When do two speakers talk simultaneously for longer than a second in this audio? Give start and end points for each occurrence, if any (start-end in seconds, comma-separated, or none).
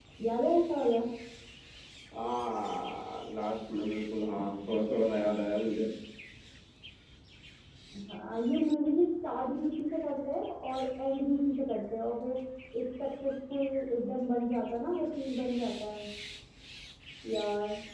none